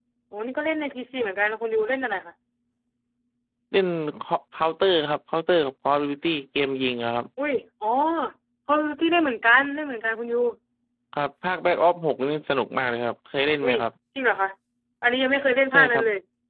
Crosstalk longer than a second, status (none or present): none